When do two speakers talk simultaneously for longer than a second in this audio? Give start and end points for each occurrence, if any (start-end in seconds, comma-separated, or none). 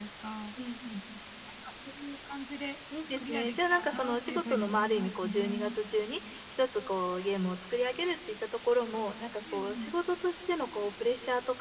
3.2-5.8